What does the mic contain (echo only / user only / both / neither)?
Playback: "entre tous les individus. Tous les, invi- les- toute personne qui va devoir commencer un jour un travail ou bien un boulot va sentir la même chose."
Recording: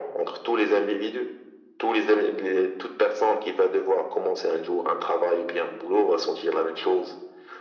echo only